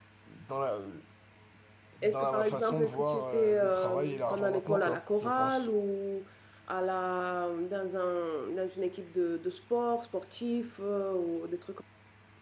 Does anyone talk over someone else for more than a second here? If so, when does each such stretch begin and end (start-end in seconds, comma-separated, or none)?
2.0-5.7